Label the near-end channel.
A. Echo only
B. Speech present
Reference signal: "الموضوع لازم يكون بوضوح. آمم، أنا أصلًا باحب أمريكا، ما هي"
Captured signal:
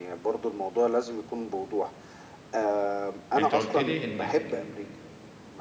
B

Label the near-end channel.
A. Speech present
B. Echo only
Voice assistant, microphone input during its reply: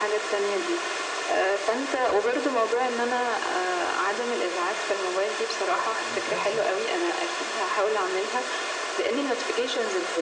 A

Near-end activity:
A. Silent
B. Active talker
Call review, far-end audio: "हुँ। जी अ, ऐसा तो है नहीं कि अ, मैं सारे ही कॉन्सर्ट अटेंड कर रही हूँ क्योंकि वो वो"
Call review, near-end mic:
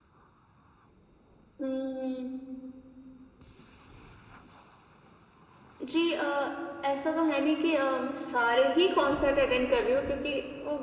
A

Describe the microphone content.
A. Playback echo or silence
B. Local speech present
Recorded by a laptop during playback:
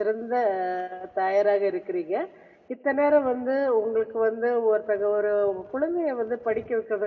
B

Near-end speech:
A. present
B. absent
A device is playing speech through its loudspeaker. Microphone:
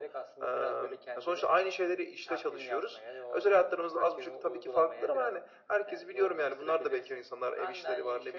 B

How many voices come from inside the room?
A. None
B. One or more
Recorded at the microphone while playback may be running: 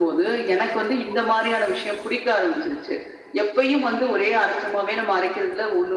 A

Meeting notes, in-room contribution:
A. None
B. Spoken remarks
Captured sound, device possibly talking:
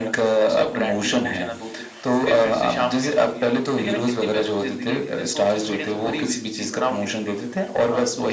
A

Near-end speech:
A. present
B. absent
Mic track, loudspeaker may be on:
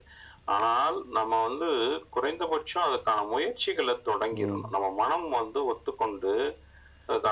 A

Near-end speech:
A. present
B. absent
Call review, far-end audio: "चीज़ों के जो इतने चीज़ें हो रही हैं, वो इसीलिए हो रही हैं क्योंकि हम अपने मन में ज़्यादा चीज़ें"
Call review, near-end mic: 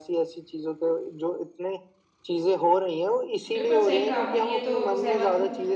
A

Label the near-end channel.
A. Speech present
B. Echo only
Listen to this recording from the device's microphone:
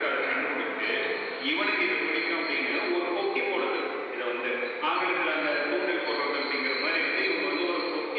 B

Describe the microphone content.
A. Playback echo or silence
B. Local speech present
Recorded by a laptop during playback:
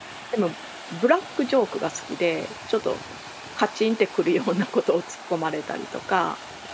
B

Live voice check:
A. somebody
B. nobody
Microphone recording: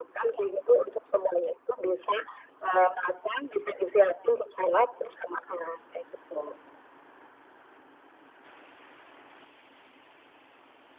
B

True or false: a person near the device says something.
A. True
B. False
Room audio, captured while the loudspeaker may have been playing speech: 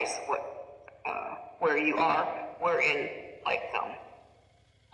B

